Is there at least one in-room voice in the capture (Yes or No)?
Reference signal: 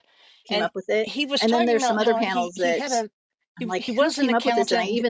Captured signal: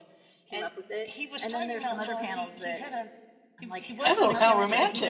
Yes